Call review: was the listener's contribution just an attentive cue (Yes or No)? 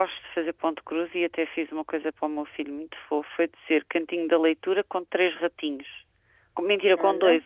Yes